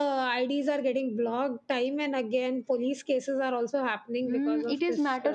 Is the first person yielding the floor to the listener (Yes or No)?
Yes